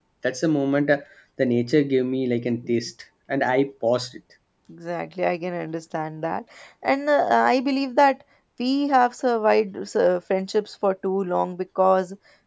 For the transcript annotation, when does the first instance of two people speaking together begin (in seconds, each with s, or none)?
none